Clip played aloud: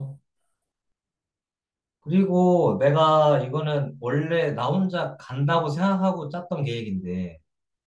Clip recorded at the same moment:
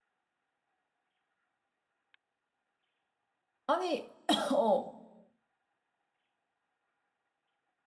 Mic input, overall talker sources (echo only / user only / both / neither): user only